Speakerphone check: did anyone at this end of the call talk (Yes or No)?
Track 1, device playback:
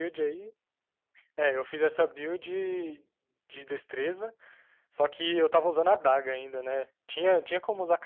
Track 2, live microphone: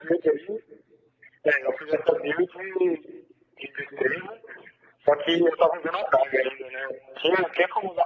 No